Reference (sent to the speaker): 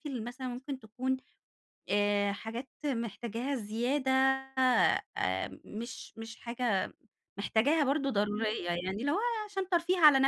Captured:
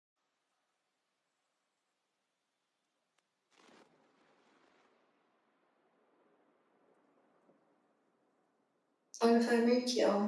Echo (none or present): none